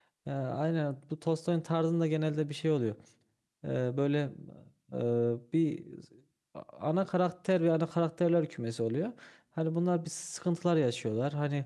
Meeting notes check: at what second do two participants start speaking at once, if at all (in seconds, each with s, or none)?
none